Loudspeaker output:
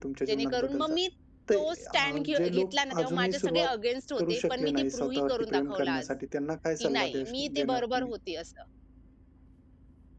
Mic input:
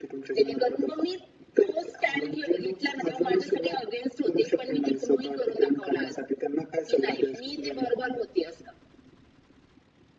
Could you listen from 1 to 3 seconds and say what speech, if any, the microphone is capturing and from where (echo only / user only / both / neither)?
echo only